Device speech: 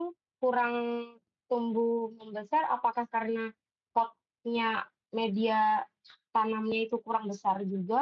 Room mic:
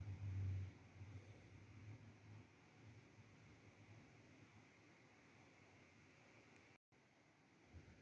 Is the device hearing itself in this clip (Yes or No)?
No